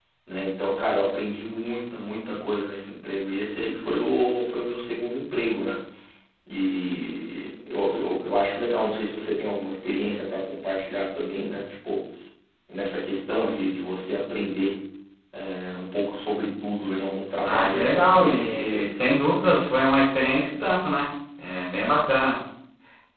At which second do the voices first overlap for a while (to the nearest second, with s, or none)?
17 s